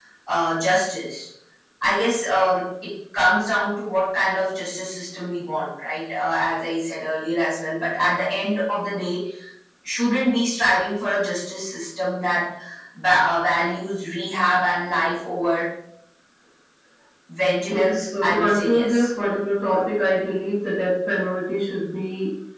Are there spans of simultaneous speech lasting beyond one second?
Yes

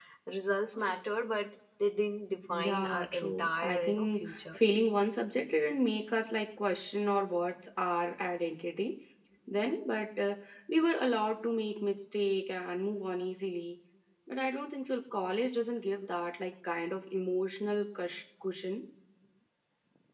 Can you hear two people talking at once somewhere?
Yes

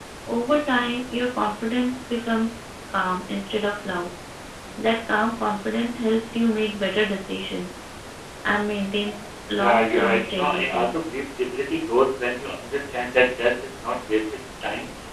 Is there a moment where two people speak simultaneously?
Yes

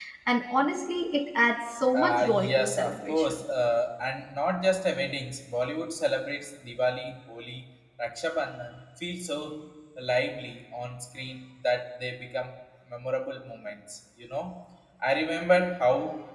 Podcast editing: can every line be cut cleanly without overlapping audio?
No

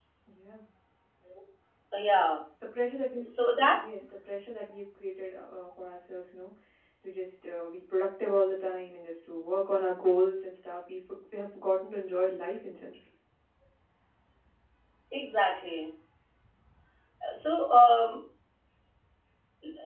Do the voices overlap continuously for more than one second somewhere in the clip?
No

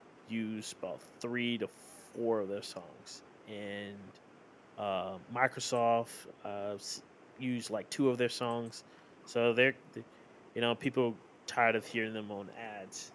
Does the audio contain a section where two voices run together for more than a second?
No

